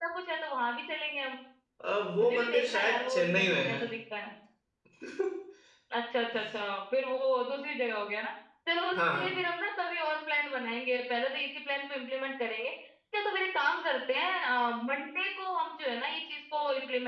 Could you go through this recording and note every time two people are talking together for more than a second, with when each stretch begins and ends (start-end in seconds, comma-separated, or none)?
2.2-3.8